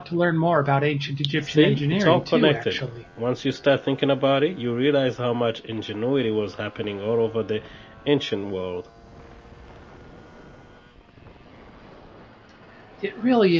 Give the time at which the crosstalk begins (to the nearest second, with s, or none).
1 s